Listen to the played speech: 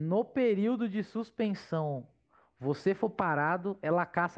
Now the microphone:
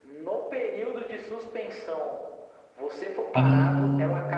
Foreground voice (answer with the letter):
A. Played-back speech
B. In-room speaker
B